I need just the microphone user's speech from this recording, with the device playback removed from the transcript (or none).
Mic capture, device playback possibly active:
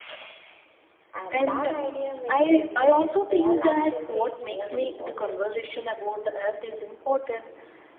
And that idea makes every small action feels more important.